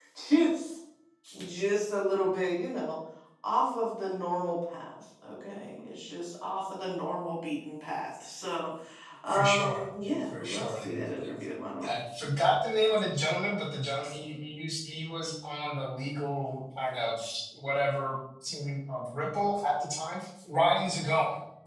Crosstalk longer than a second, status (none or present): present